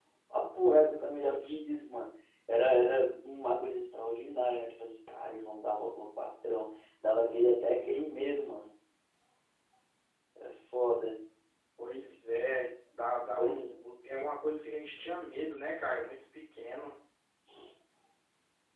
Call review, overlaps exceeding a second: none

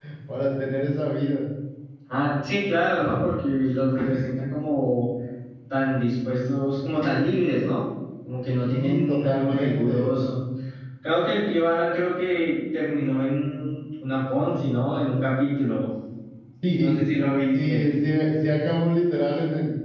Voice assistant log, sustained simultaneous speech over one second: present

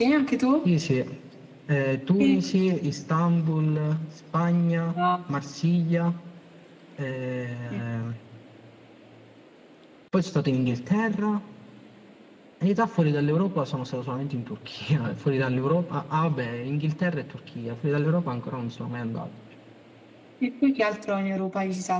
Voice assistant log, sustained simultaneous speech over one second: none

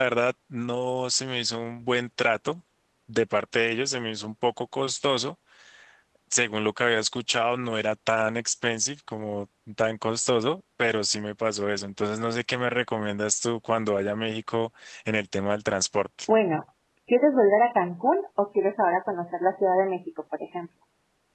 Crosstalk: none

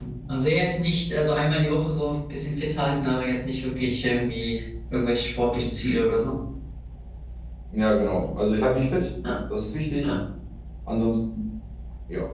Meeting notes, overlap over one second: none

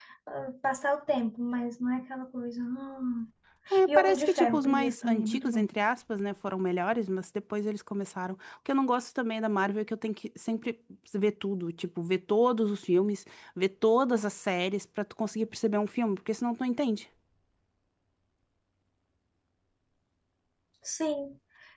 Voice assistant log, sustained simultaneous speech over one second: present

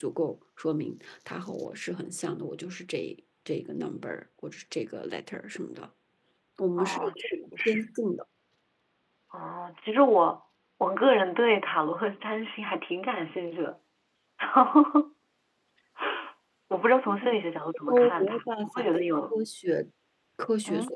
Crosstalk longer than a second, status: present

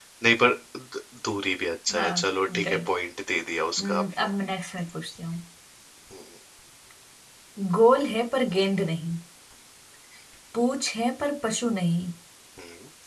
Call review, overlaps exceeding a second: none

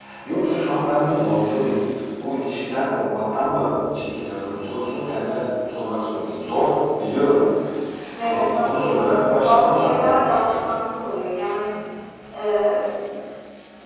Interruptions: present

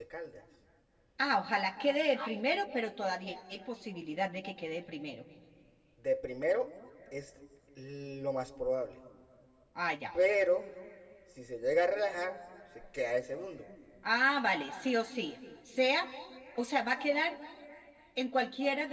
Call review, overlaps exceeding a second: none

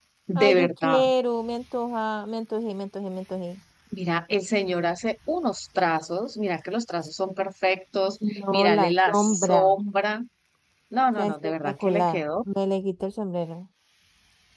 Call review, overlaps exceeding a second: present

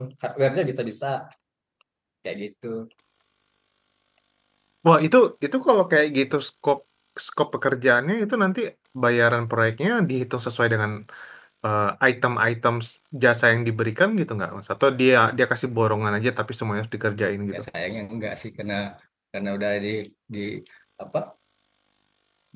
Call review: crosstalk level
none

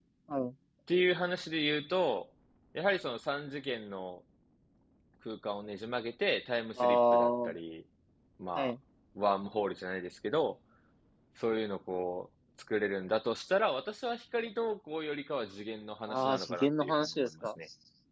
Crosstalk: present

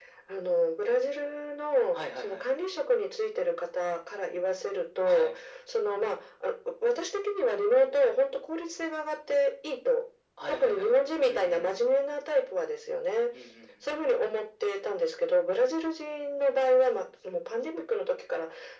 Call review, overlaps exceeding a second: present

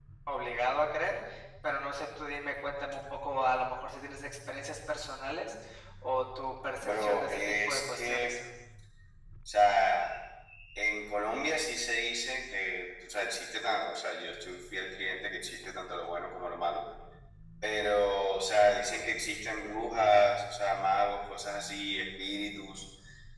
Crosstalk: present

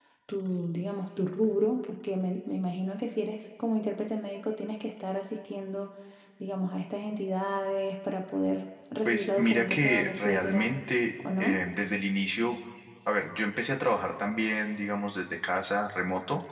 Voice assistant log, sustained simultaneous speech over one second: present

